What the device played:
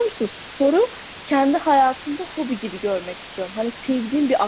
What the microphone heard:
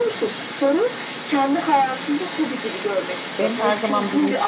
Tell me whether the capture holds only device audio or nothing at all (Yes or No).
No